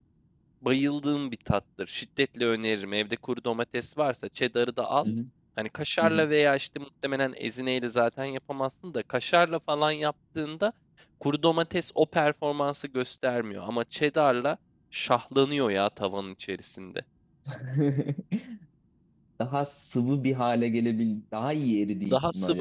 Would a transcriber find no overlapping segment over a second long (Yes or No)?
Yes